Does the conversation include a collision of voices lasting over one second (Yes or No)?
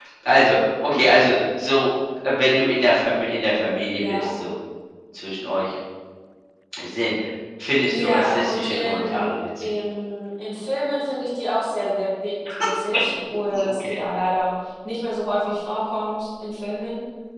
Yes